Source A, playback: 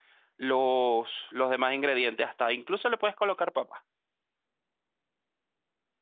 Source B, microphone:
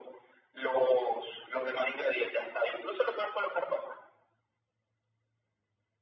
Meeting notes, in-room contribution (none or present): none